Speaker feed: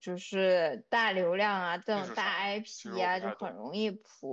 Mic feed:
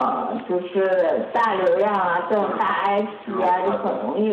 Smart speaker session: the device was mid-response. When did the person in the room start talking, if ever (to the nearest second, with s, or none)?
none